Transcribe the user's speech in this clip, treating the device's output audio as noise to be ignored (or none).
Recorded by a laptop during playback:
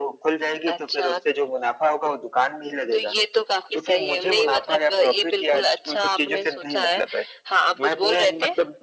none